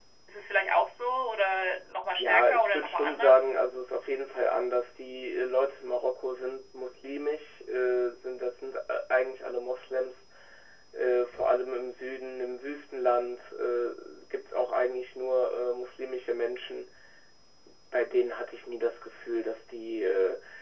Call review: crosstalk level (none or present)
present